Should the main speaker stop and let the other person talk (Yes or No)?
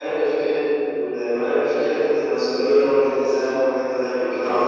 Yes